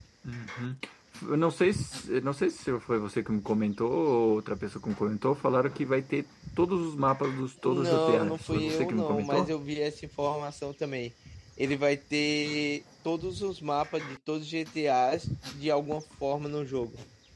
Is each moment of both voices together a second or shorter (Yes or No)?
No